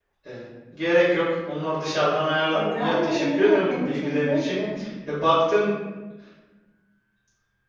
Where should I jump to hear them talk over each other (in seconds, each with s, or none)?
2.5 s